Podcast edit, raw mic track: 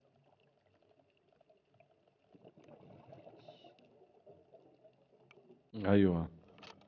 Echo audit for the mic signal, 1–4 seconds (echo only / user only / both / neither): neither